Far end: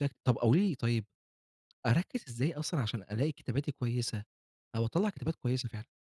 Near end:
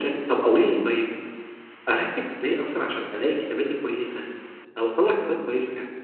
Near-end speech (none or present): none